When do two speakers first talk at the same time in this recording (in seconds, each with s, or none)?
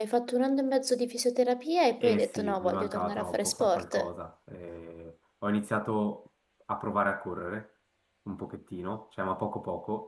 2.0 s